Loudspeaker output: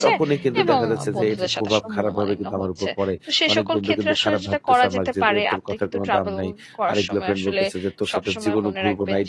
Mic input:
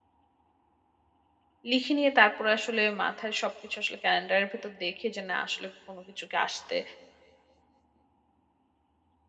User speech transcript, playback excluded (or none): লিখে নিয়ে তারপরে আসলে মাথায় সবকিছু আসলে ক্যালেন্ডারের ভেতর দেখে যে না আসলে কোনো কিছু কি আসতে